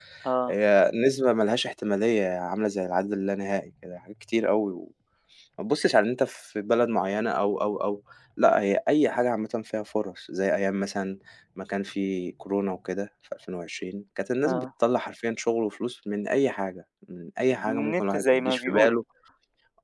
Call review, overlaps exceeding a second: present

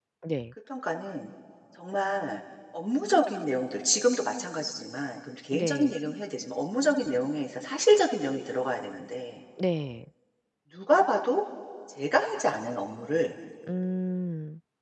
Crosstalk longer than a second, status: none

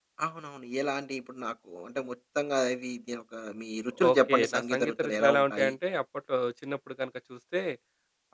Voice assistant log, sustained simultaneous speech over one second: present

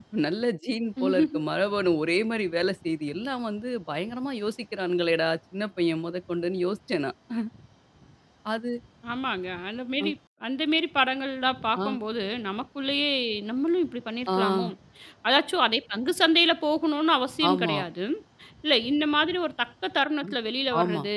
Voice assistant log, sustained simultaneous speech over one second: none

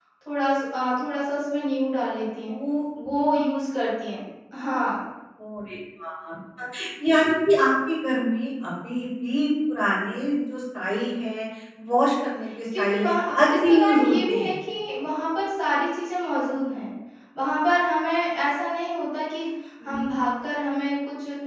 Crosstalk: present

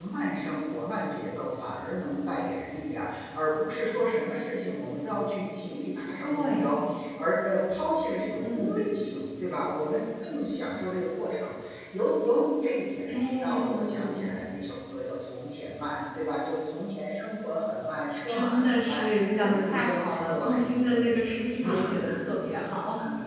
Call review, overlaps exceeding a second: present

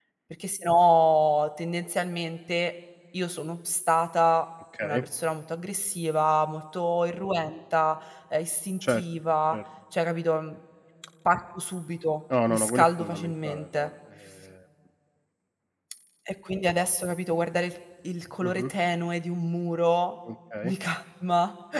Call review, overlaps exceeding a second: present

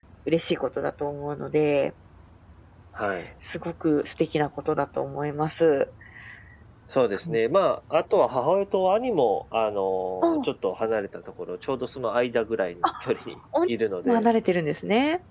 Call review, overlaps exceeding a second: none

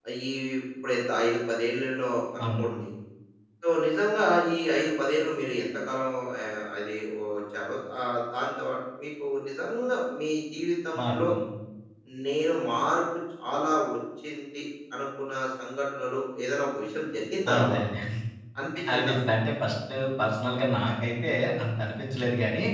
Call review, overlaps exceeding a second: none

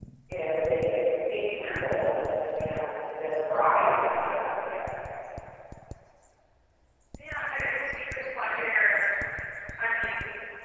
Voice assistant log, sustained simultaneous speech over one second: none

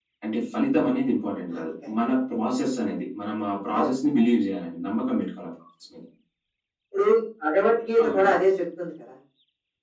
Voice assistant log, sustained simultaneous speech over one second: none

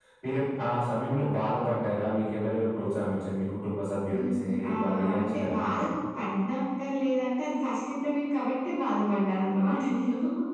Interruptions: present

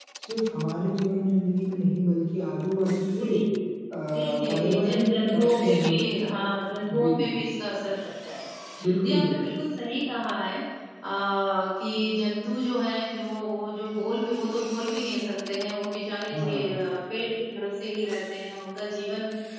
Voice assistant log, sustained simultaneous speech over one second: present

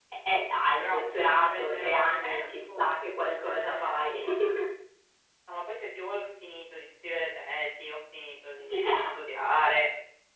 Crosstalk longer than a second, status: present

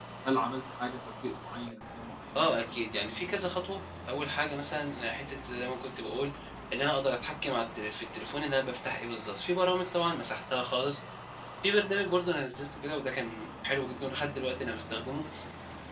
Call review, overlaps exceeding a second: none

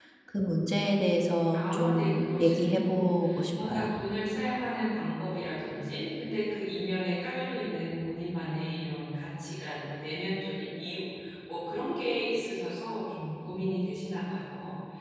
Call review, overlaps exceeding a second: present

